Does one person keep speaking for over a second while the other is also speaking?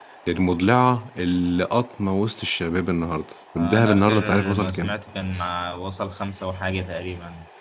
Yes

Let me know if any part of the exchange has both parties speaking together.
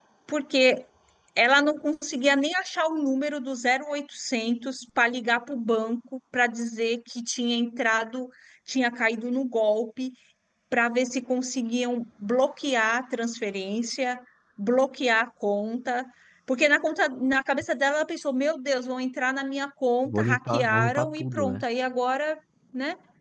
Yes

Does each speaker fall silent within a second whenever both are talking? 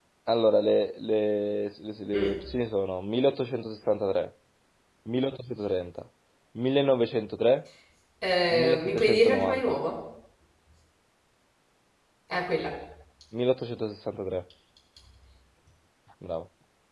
No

